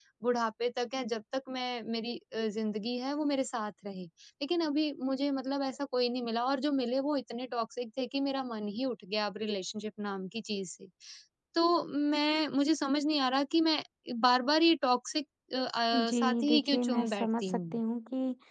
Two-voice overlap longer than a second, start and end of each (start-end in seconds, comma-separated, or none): 16.0-17.7